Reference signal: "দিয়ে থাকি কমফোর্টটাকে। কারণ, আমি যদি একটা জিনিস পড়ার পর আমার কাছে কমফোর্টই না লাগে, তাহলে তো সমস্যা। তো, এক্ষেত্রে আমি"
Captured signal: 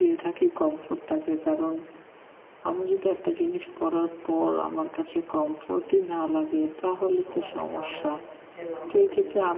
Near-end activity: present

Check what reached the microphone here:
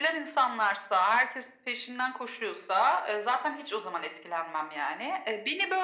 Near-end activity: none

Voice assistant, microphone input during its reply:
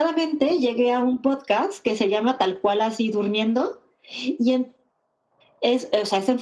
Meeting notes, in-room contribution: none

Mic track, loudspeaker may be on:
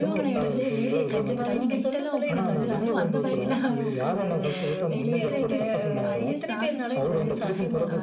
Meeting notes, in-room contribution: present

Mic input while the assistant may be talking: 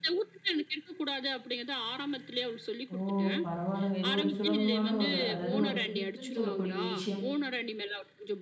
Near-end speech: present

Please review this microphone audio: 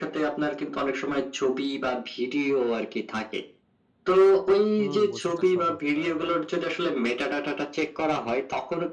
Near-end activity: present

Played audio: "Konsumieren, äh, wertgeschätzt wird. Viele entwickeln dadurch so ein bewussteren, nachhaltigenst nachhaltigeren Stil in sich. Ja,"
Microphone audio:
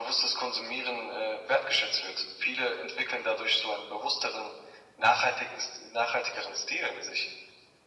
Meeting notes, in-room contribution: none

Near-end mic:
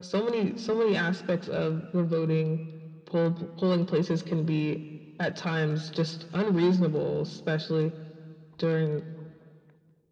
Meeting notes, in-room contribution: none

